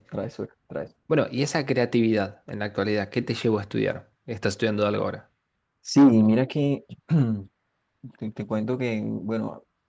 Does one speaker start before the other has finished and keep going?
No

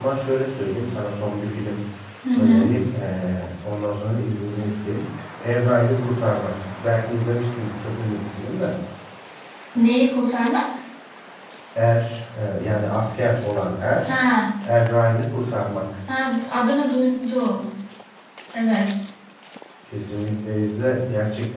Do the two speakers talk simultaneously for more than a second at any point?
No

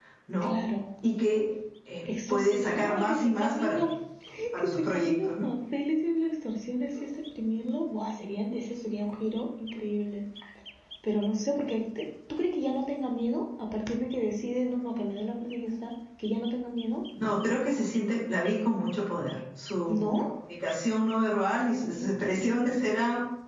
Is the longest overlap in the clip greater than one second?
Yes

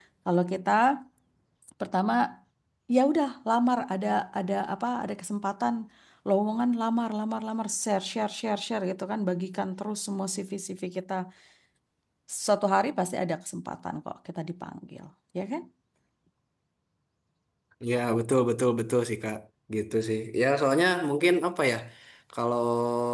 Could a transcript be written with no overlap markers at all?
Yes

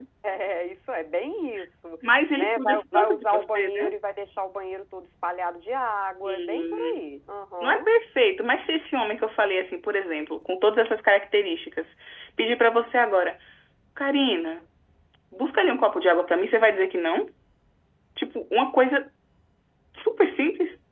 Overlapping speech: Yes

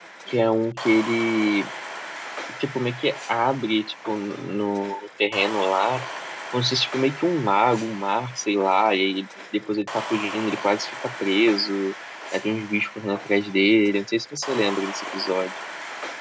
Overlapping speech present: No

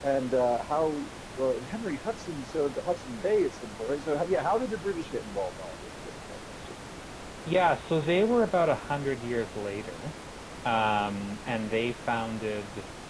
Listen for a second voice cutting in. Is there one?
No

